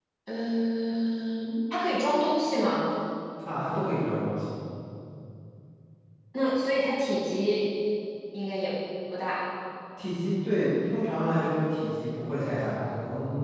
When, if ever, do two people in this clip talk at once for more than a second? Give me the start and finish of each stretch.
none

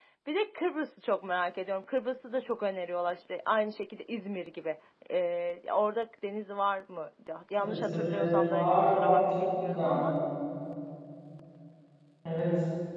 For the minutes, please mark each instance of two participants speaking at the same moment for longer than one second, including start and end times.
7.6-10.0

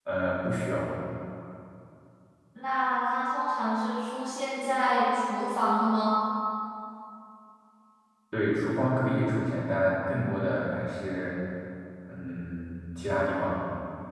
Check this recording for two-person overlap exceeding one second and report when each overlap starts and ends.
none

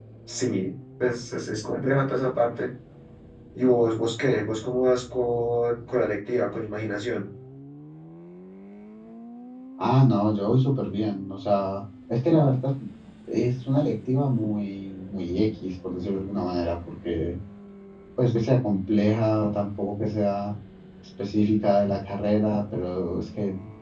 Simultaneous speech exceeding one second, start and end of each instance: none

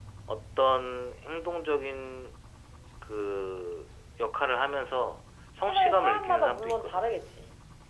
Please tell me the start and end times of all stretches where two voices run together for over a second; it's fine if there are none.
5.7-7.1

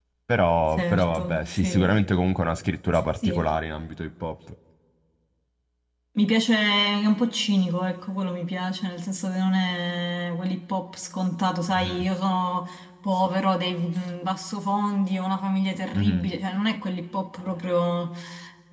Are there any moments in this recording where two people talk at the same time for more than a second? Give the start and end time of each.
0.8-2.0

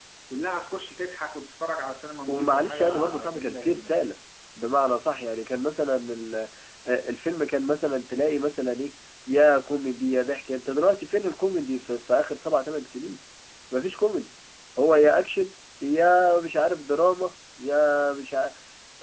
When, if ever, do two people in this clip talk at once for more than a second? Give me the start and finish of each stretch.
2.3-3.9

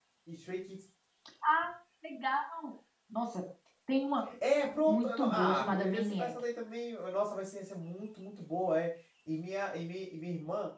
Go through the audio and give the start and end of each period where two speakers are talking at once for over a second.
4.9-6.3

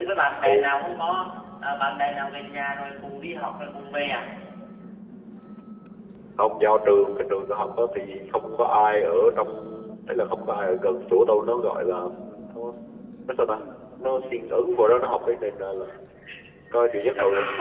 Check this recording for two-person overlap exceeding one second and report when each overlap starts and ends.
none

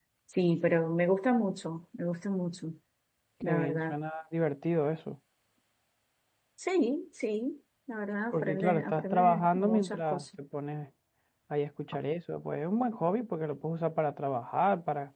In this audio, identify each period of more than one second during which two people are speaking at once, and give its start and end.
8.3-10.2

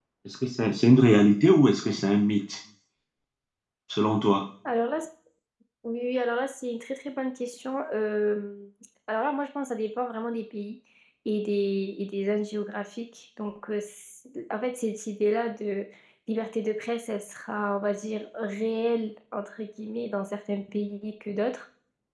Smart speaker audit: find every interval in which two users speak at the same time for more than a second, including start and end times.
none

